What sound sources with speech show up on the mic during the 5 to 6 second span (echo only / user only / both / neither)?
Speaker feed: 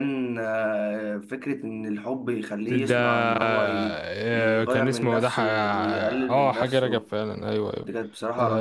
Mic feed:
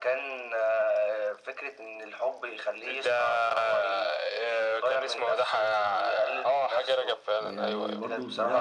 echo only